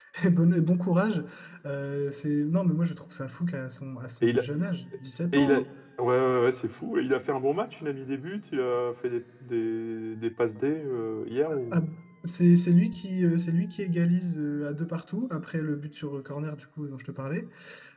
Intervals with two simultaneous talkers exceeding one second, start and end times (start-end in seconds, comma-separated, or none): none